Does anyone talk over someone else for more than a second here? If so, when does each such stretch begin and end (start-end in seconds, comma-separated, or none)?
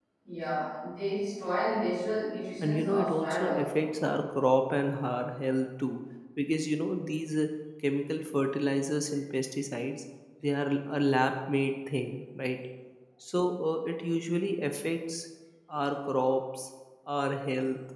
2.6-4.0